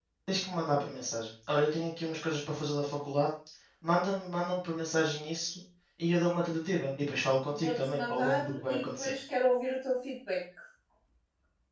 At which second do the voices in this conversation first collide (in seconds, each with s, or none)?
7.5 s